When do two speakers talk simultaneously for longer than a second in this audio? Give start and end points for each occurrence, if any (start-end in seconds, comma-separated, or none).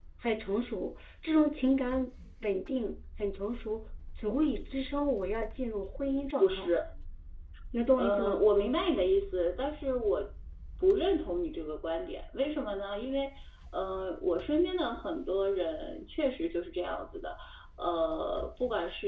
none